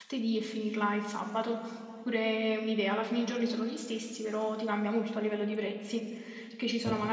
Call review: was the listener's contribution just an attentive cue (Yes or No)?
Yes